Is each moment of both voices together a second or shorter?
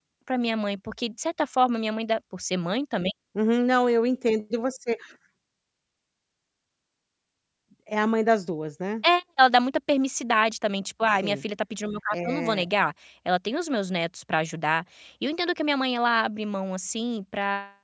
Yes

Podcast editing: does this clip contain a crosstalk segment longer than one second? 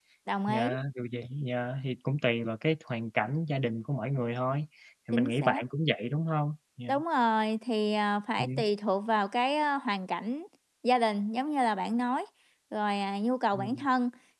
No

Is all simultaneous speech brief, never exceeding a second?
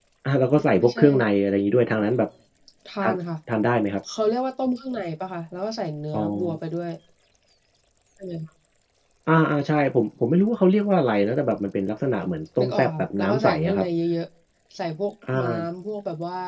No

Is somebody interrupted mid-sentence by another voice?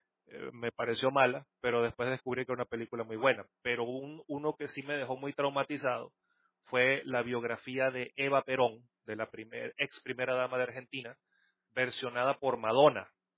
No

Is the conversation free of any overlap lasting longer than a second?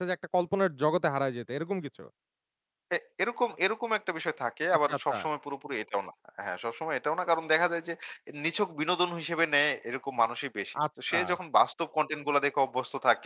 Yes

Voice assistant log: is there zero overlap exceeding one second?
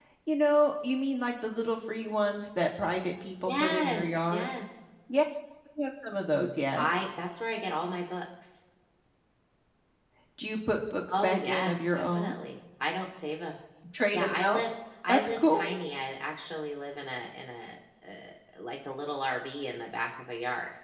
No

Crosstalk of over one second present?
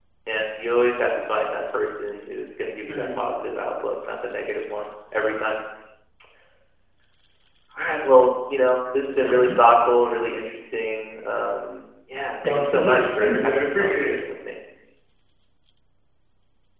Yes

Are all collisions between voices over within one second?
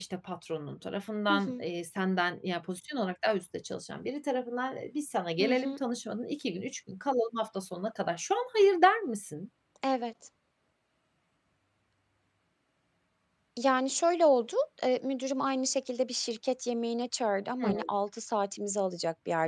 Yes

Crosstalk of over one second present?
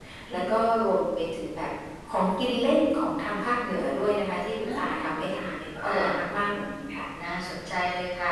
No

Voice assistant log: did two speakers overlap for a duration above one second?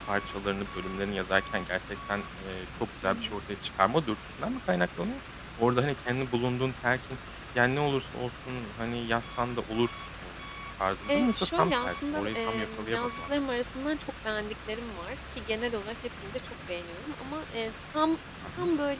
Yes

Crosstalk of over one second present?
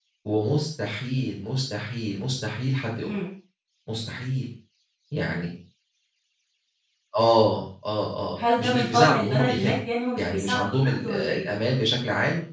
Yes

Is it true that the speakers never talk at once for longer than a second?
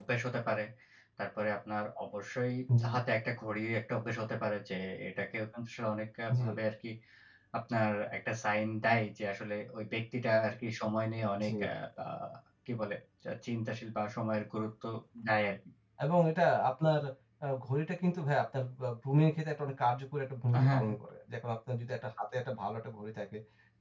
Yes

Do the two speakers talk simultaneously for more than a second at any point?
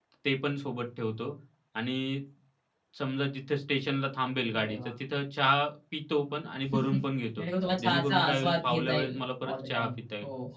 Yes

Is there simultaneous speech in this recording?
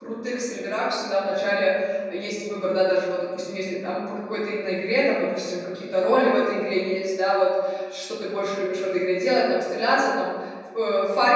No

